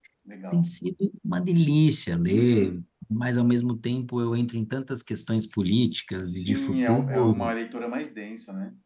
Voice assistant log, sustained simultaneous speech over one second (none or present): present